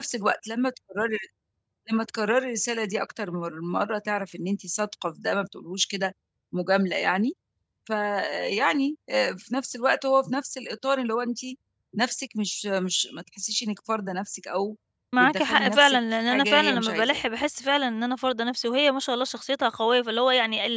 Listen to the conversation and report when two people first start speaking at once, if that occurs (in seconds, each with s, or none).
15.2 s